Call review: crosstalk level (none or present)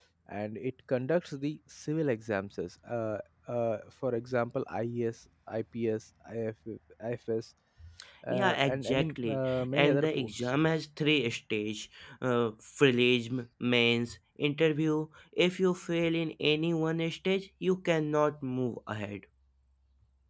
present